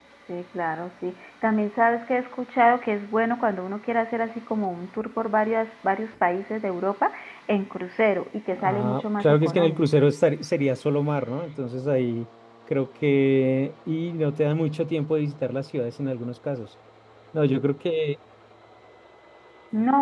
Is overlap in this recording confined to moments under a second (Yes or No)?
No